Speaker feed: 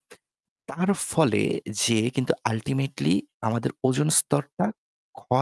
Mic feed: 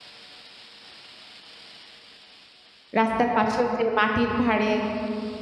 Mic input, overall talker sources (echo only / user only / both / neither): user only